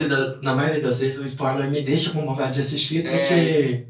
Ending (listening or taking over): taking over